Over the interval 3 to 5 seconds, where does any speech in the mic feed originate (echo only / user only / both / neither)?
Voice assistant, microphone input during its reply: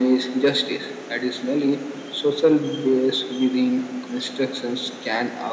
echo only